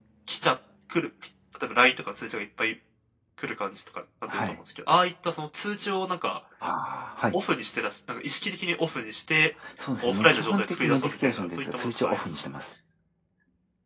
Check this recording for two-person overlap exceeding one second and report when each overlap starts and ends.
10.0-12.3

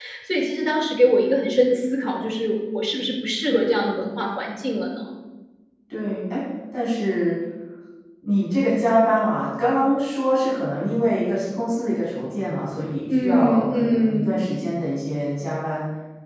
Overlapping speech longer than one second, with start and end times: 13.2-14.5

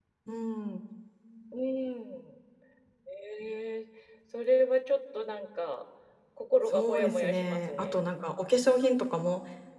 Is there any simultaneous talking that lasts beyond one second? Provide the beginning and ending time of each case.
6.7-8.0

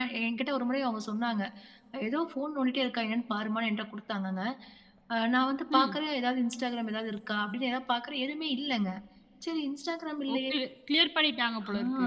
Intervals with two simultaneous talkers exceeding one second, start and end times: none

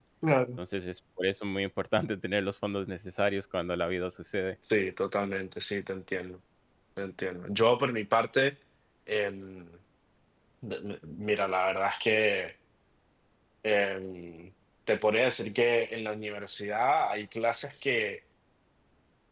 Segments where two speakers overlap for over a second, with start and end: none

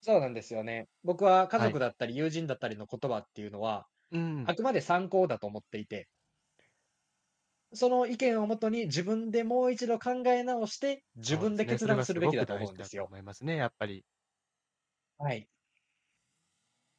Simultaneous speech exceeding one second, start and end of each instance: 11.2-13.1

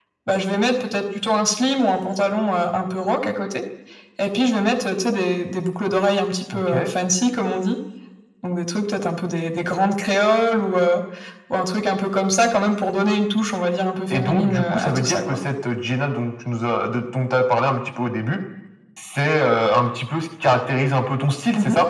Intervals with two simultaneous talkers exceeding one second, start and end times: 14.1-15.4

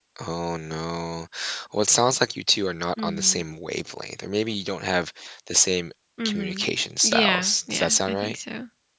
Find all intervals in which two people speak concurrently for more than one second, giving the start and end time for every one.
7.0-8.4

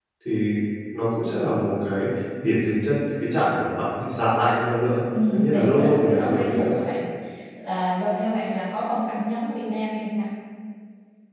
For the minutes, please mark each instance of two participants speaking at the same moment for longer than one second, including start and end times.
5.3-6.7

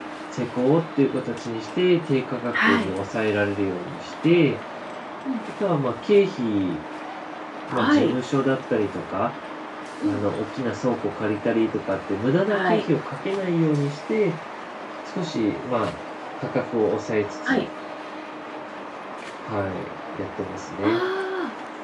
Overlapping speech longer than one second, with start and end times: none

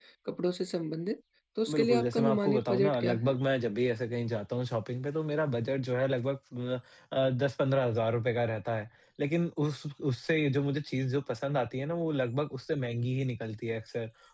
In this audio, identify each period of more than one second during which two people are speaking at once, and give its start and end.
1.7-3.4

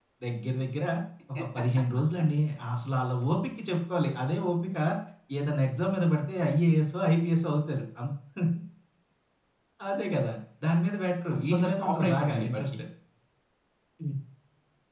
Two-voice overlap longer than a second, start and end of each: 11.3-12.7

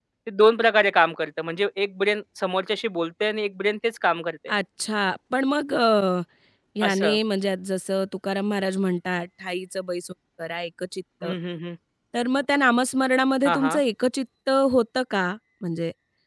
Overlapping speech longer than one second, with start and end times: none

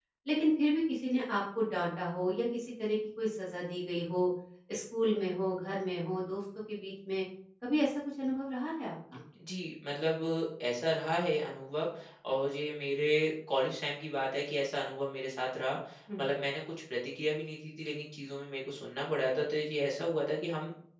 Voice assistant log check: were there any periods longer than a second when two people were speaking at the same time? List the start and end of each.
none

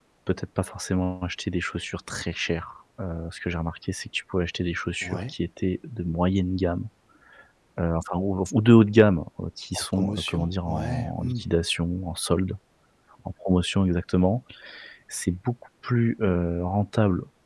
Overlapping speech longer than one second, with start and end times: 9.7-11.4

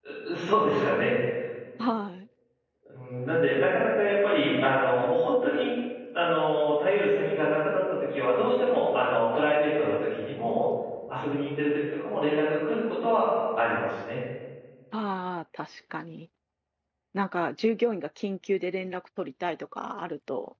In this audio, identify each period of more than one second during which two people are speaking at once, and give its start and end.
none

